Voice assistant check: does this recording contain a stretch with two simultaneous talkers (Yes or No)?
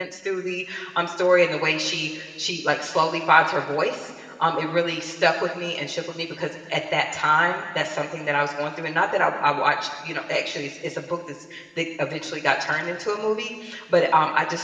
No